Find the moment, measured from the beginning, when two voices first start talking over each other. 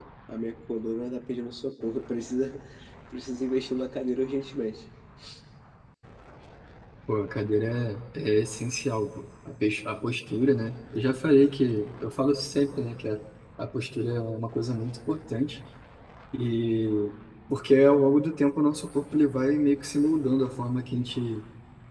none

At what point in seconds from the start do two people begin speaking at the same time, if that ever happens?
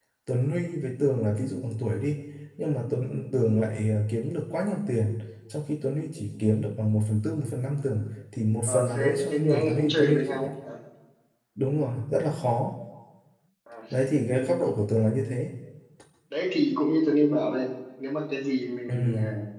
8.7 s

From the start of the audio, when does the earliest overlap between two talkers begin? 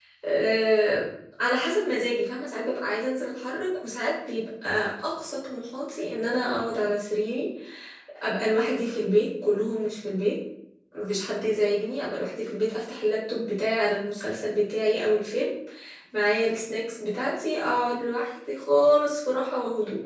none

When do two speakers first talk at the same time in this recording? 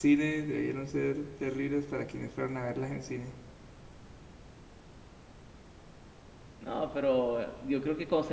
none

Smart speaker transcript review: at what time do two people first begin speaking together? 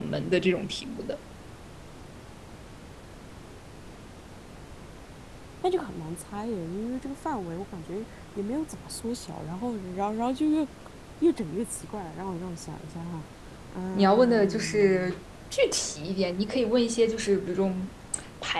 13.9 s

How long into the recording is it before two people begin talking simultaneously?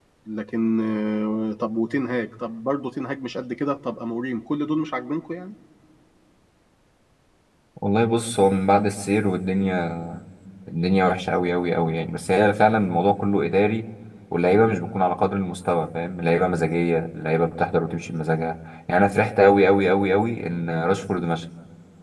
none

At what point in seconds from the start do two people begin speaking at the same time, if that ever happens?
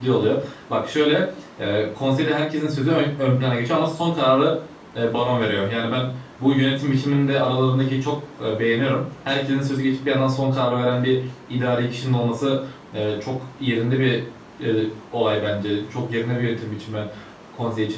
none

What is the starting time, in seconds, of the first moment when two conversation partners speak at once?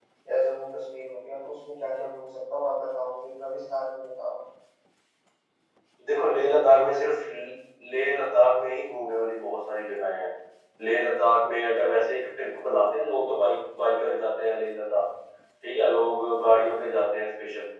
none

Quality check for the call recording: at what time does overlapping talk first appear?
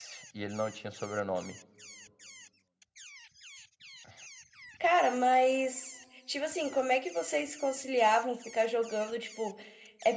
none

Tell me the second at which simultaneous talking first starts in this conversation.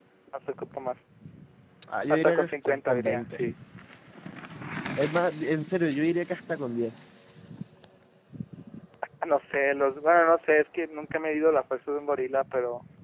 2.1 s

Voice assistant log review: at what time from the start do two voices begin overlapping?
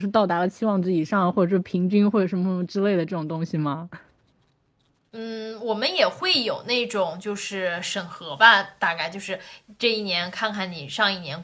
none

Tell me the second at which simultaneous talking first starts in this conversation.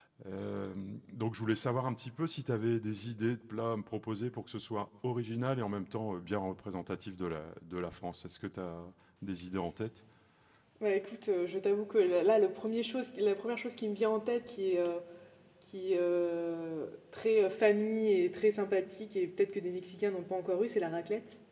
none

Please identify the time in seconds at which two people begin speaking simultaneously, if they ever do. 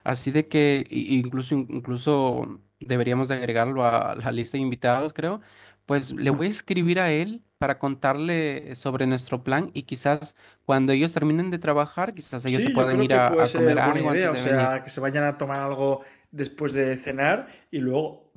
12.5 s

